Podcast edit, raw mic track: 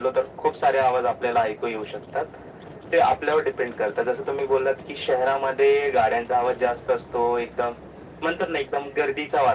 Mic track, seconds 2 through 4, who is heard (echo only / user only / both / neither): echo only